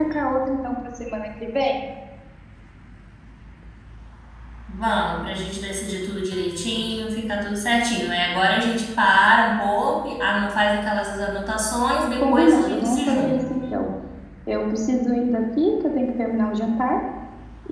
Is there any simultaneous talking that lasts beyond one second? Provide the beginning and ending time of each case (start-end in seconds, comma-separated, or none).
12.2-13.4